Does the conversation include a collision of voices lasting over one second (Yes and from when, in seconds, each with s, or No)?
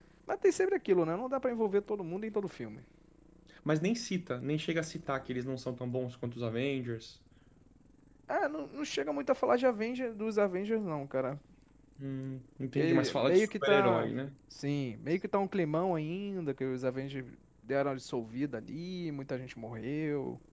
Yes, from 12.8 s